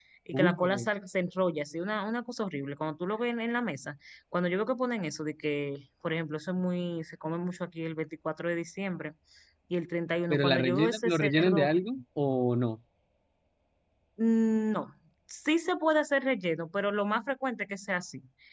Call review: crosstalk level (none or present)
present